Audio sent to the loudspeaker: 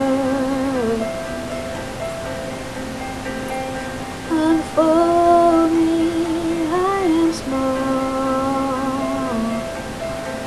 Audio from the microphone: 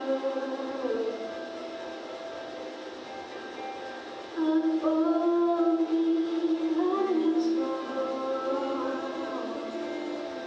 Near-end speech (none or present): present